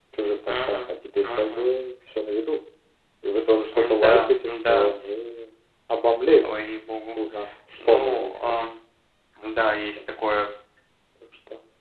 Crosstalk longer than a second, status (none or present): present